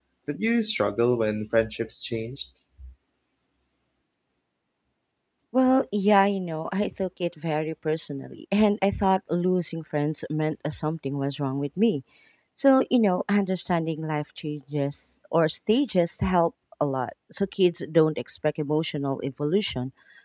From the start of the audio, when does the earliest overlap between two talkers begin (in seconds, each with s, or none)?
none